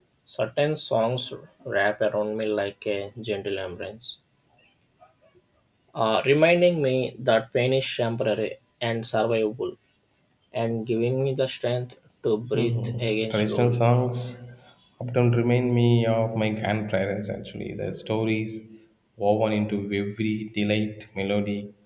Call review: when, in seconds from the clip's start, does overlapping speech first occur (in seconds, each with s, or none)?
12.5 s